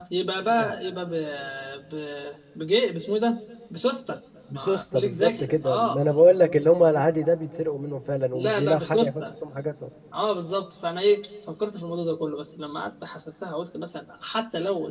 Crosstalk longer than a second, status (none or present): present